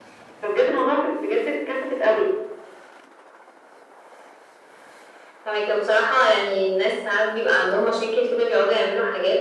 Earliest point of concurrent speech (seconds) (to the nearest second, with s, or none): none